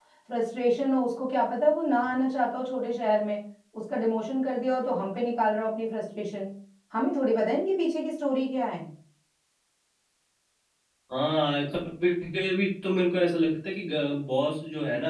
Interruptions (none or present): none